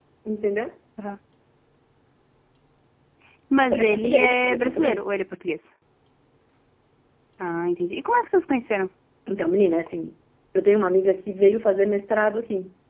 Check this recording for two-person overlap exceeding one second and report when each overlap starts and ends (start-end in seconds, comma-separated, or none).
3.7-5.0